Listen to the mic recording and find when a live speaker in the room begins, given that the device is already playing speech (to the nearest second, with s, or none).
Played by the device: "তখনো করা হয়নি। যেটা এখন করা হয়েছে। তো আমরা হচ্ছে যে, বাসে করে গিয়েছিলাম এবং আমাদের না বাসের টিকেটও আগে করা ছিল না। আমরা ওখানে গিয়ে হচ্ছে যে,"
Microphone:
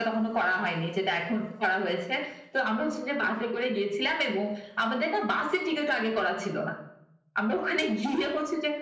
none